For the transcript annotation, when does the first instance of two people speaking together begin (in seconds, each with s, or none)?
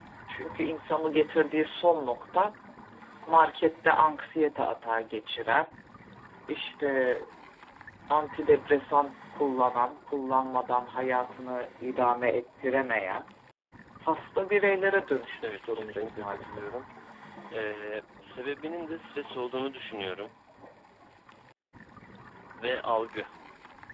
15.4 s